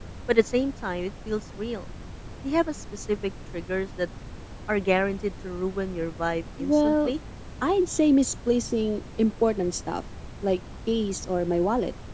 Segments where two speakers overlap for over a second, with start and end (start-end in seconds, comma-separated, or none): none